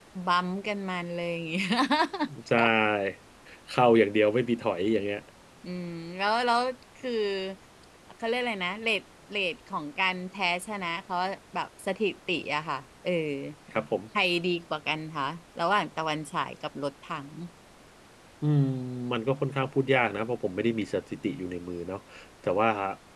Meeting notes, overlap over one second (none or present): none